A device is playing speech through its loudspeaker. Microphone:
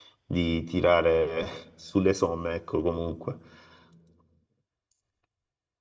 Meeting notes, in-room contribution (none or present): present